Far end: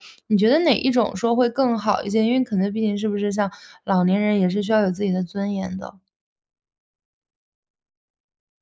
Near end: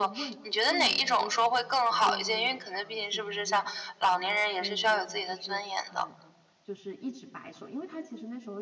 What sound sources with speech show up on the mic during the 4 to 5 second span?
both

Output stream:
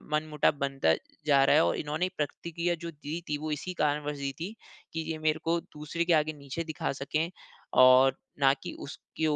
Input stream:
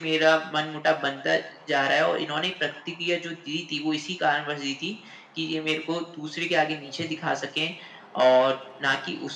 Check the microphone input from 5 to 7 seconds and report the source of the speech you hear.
echo only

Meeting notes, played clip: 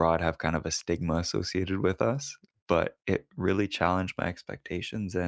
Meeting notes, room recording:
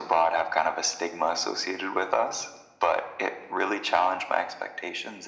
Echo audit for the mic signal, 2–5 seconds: echo only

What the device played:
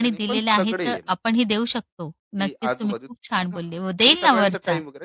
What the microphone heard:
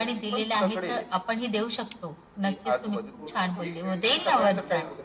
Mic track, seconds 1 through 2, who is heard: echo only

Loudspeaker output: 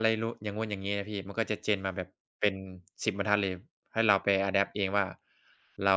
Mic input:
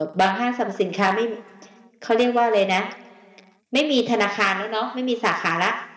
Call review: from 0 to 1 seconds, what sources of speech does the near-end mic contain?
user only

